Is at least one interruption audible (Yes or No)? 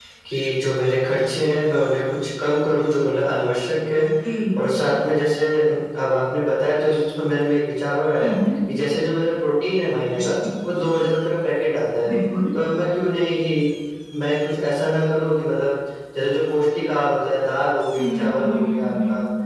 Yes